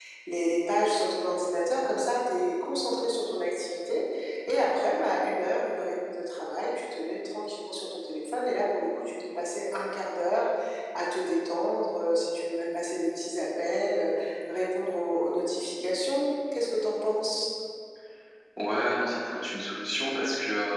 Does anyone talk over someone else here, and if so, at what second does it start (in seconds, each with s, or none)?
none